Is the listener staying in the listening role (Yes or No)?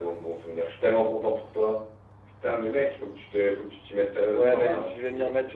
No